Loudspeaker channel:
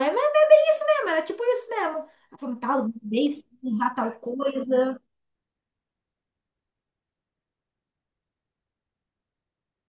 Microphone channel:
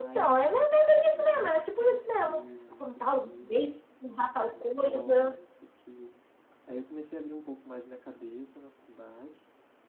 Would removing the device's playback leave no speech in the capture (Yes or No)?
No